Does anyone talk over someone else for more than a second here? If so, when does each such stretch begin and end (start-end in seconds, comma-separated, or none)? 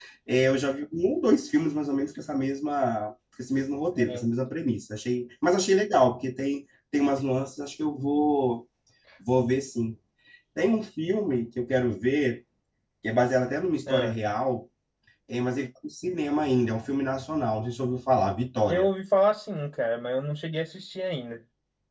none